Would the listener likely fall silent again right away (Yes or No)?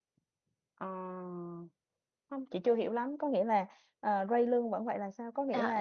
No